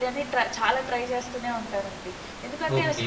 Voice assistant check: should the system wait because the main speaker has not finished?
No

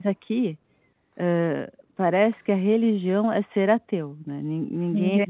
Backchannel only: Yes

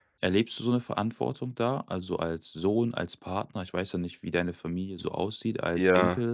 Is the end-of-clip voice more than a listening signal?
Yes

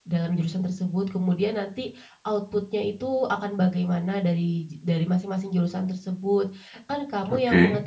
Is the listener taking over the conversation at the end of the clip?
No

